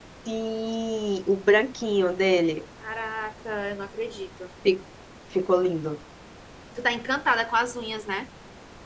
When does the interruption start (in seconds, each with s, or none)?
none